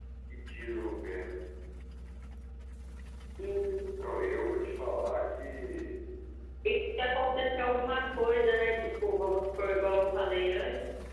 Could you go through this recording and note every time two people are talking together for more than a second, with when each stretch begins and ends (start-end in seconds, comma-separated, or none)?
none